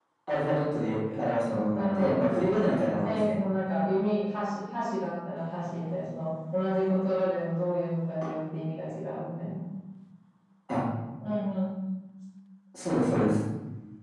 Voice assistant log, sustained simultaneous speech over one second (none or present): present